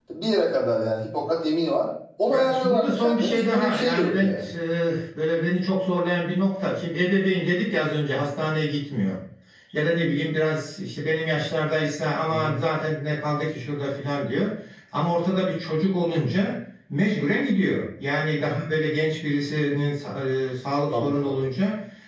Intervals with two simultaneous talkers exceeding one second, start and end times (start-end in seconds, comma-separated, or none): 2.3-4.4